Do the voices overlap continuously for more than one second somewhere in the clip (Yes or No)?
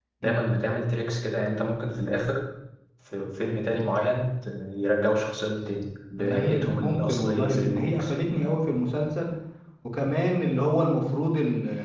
Yes